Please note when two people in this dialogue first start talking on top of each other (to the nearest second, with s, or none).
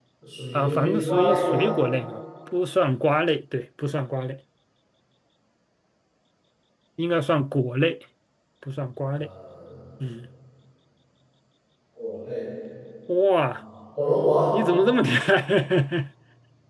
1 s